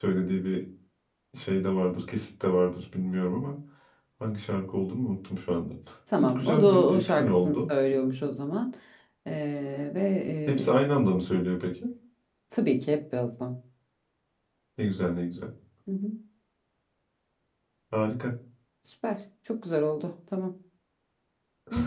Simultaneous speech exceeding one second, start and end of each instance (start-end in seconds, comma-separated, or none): 6.2-7.7